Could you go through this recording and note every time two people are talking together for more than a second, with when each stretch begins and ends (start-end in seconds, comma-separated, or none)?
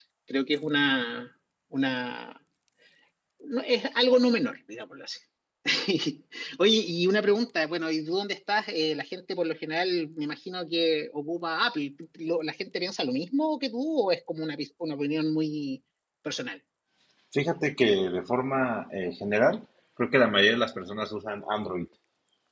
none